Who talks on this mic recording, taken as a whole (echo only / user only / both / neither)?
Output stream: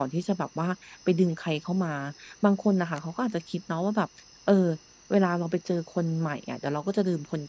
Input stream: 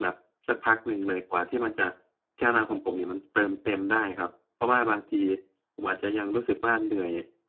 user only